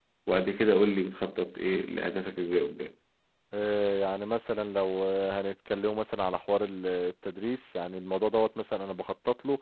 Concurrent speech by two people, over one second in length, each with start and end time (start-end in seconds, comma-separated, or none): none